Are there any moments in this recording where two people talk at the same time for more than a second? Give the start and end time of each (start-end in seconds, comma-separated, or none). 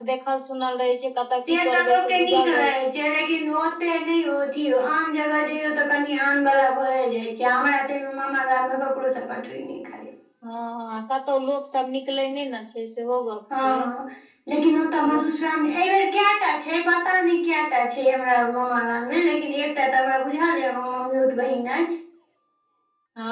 1.1-2.7